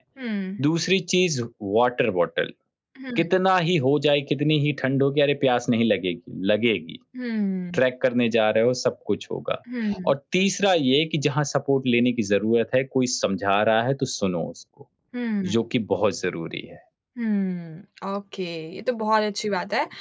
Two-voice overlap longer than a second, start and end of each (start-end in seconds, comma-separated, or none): none